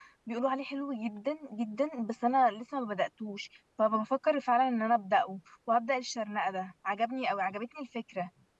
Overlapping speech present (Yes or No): No